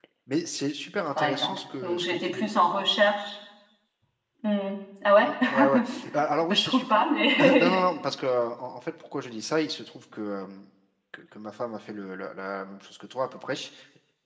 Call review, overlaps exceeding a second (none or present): present